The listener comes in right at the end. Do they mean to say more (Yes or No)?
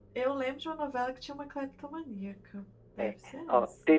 Yes